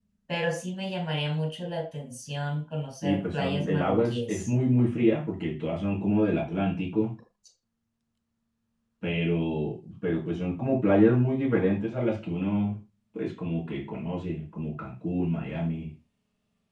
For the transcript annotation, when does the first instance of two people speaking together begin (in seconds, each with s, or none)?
3.0 s